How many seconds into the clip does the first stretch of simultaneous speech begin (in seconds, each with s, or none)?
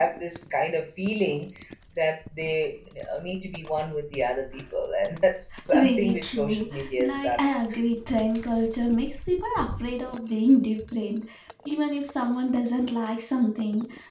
5.7 s